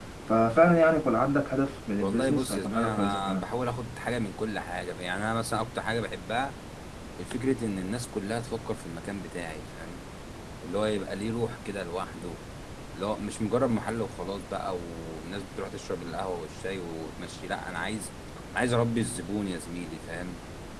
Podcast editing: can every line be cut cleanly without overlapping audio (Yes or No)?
No